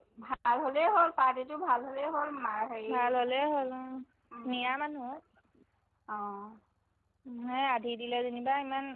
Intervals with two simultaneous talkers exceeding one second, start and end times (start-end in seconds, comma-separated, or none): none